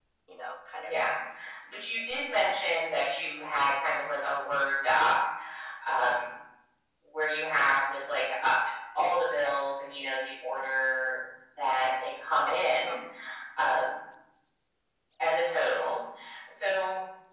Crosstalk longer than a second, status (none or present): none